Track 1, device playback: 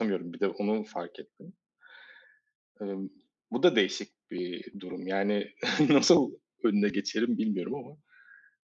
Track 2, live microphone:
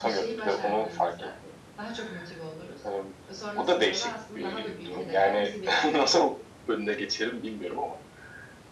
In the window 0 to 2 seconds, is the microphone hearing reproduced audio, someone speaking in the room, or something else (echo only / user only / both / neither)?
both